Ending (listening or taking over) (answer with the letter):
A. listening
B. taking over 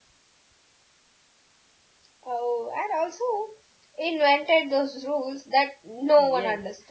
B